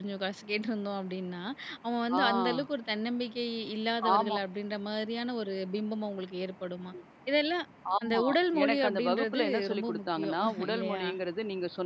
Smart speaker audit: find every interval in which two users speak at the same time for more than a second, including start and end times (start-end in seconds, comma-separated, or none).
8.6-11.0